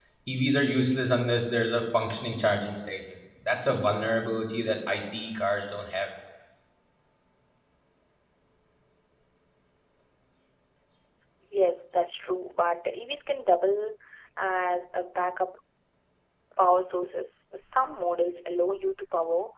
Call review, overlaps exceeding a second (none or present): none